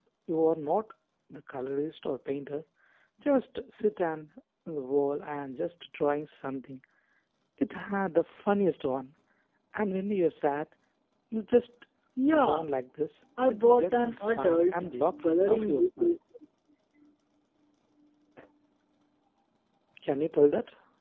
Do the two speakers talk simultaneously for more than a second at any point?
Yes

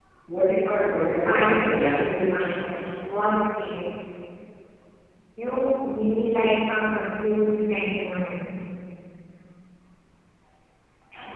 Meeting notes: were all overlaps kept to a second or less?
No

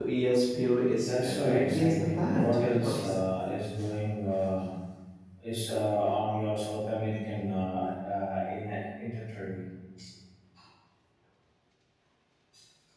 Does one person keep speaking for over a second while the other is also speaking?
Yes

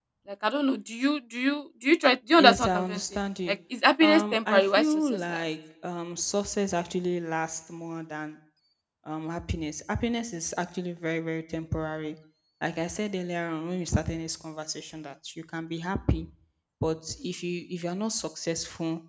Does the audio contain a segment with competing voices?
Yes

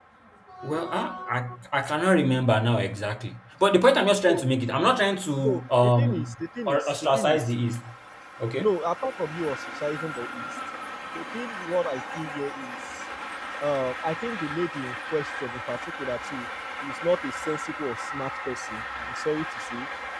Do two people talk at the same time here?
Yes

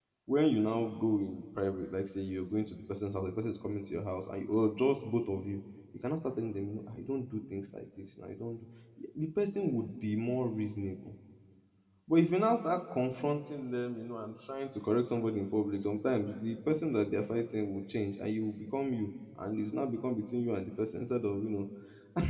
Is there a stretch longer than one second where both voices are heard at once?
No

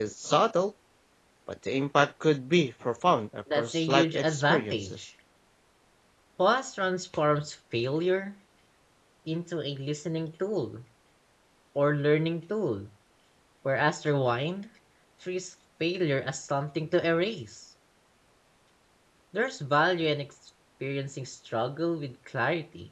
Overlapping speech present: Yes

